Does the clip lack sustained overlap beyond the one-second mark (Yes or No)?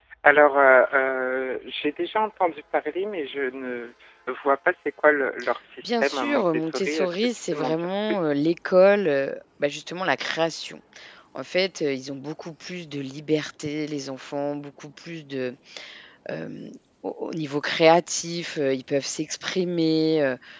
No